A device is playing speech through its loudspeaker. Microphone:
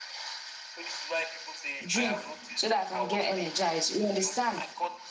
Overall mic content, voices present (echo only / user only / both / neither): both